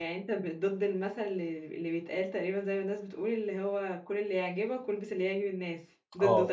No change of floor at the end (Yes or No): No